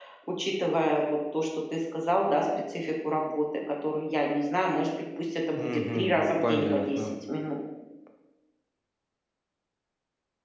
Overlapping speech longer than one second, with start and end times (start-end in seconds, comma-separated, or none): 5.5-7.0